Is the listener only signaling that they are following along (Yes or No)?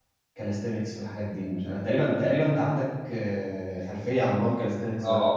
No